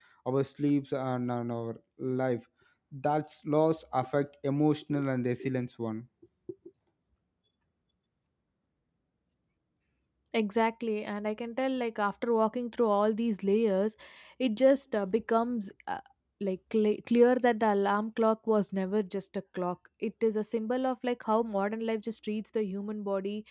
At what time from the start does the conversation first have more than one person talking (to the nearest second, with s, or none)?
none